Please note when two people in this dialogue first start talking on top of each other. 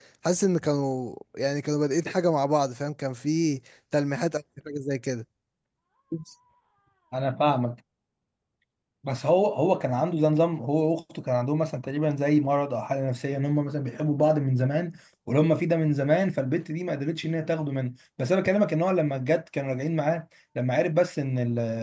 none

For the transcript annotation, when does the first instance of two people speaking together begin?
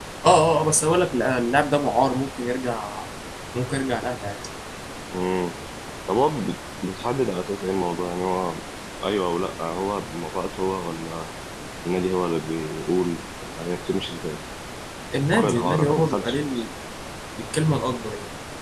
15.3 s

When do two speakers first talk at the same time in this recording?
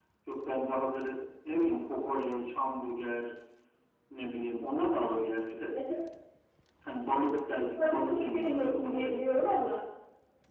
7.8 s

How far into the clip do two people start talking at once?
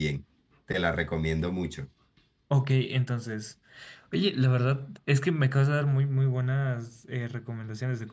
none

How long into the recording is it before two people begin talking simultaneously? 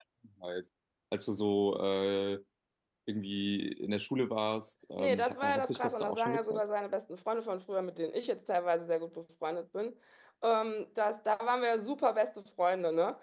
5.0 s

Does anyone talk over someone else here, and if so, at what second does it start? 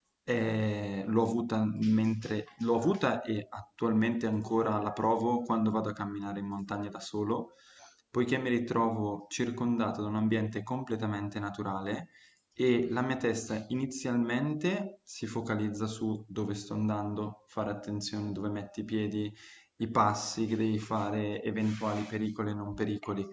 none

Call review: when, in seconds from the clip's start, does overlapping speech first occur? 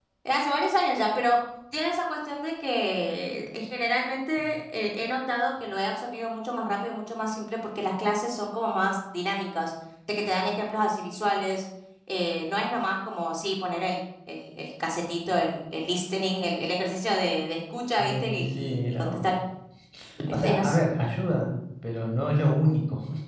18.0 s

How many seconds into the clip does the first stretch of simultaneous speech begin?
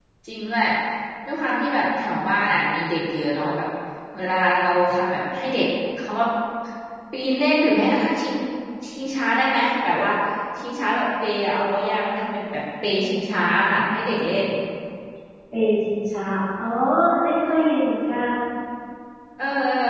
none

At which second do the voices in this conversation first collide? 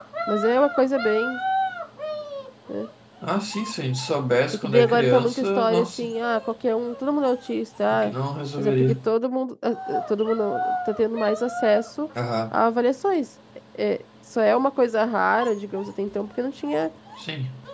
4.5 s

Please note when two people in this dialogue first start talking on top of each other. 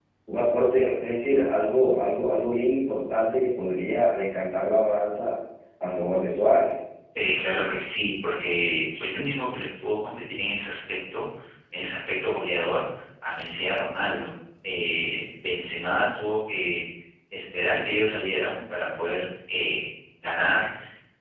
none

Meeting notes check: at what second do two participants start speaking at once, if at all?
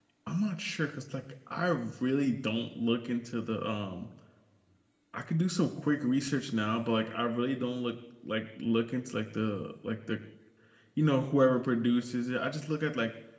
none

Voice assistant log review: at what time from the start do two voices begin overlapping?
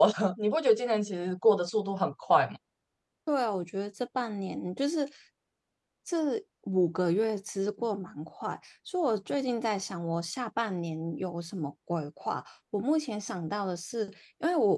none

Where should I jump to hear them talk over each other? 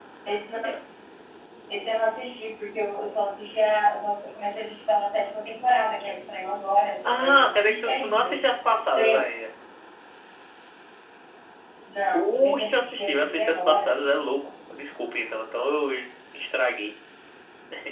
7.1 s

